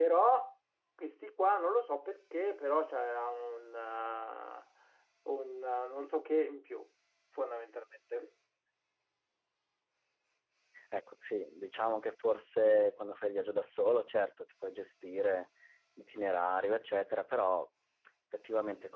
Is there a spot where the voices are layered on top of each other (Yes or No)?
No